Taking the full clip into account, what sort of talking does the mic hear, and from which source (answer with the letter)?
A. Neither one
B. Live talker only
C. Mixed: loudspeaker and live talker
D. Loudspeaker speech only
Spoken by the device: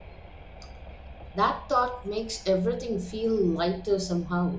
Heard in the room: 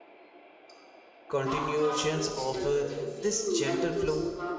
C